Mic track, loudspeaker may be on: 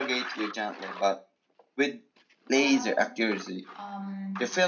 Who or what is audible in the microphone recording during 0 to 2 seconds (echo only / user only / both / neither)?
echo only